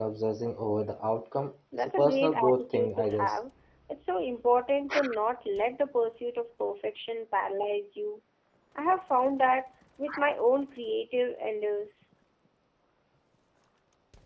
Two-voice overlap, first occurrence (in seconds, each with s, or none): 2.0 s